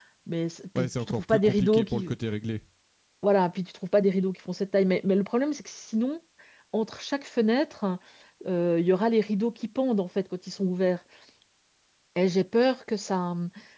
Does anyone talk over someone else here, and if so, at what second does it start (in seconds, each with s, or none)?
0.8 s